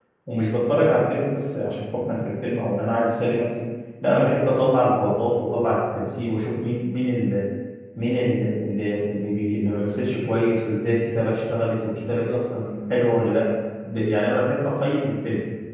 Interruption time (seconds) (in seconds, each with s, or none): none